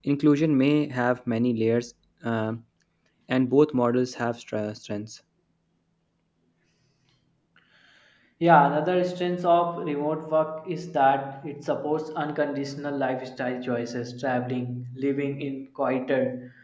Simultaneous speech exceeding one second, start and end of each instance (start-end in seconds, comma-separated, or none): none